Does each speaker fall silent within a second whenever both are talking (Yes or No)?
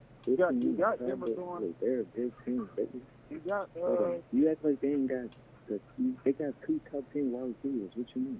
No